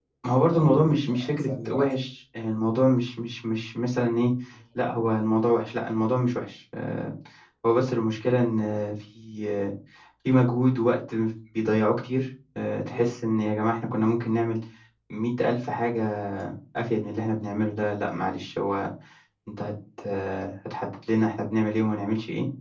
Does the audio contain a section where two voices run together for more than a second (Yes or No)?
Yes